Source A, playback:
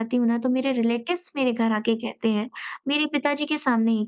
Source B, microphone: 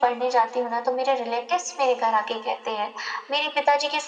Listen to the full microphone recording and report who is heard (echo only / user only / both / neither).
echo only